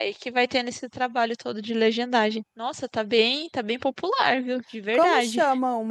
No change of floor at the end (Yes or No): No